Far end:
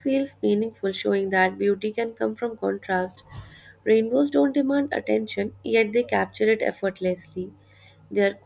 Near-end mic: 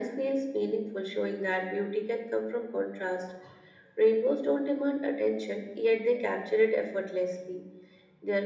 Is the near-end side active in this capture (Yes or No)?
No